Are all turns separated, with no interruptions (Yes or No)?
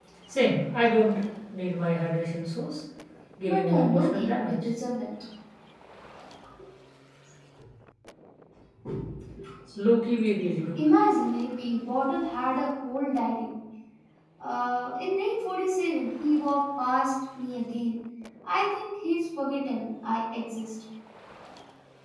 No